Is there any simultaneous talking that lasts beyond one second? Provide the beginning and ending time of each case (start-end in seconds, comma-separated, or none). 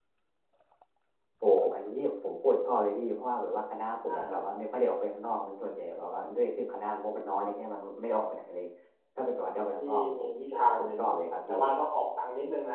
9.8-11.0